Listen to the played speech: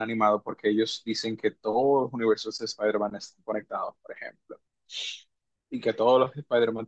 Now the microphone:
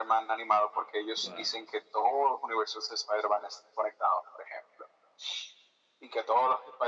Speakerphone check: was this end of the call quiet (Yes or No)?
No